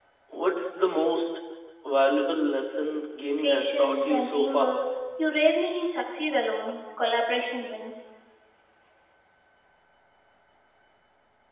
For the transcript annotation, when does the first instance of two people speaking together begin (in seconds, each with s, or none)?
3.4 s